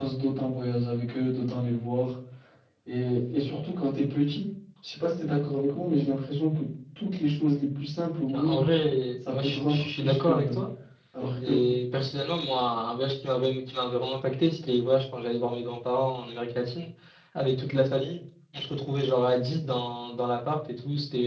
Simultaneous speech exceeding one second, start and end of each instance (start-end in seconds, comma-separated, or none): 9.3-10.6